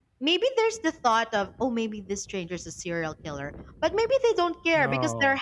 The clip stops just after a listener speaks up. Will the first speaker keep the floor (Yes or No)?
Yes